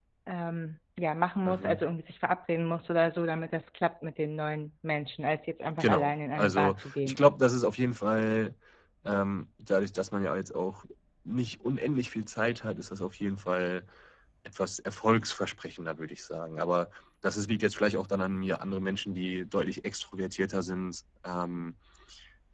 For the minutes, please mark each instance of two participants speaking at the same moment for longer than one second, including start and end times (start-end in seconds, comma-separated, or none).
5.8-7.2